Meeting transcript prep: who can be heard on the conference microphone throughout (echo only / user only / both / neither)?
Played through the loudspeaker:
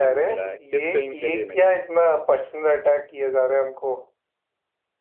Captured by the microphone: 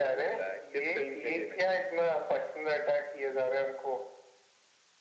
echo only